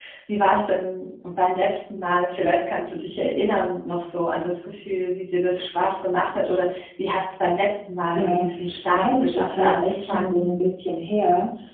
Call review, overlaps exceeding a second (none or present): present